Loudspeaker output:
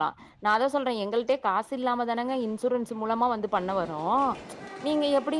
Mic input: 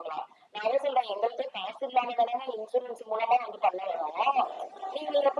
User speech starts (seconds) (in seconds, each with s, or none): none